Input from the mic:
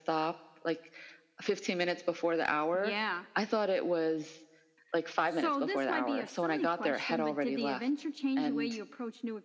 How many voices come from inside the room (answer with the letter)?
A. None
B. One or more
A